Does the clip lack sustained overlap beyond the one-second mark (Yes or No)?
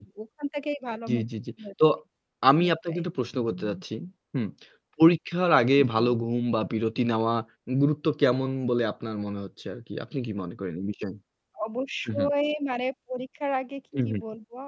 Yes